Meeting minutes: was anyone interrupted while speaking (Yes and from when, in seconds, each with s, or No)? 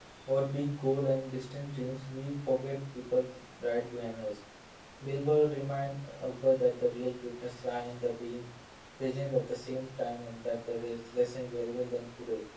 No